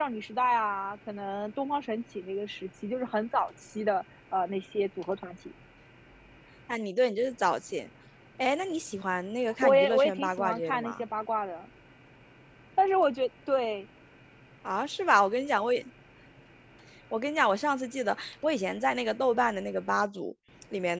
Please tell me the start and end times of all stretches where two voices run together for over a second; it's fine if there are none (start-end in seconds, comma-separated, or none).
9.6-11.0